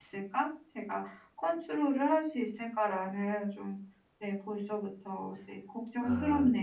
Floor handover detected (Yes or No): Yes